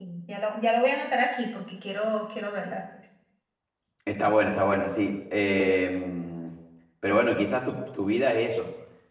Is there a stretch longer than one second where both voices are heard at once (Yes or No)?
No